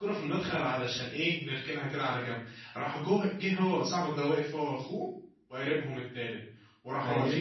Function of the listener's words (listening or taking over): listening